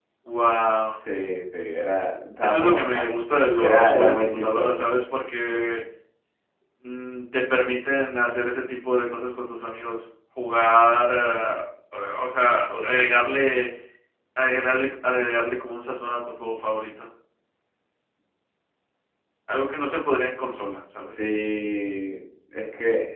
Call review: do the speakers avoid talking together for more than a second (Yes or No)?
No